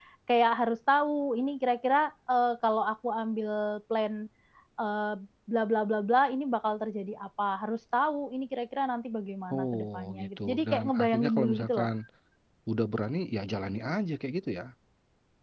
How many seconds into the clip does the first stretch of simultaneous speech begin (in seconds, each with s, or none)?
9.5 s